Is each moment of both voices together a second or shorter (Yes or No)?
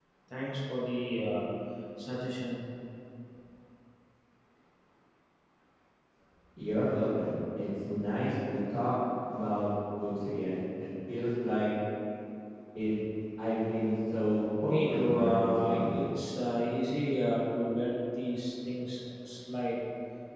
No